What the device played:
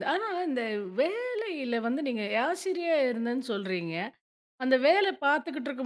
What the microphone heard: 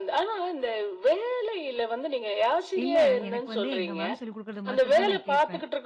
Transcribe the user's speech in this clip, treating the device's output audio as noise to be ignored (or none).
இல்ல எனக்கு வந்து எங்க மேம் சொல்லிக் குடுக்குறது மாத்திரம் தான் நான் கேட்பேன்.